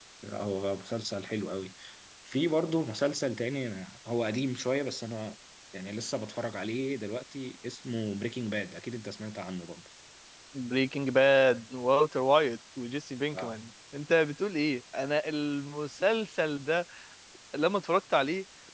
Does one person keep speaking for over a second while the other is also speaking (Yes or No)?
No